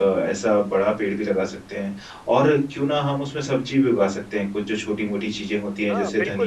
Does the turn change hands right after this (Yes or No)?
Yes